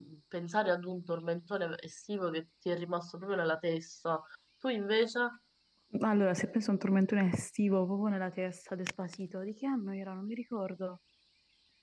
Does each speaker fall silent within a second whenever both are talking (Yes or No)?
Yes